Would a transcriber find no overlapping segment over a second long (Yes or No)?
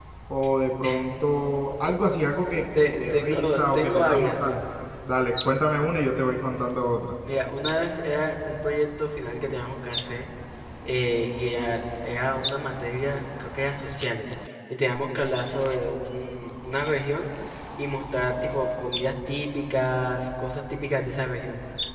No